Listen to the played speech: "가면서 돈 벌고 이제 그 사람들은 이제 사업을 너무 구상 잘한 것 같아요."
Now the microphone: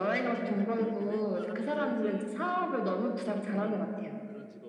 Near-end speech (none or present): present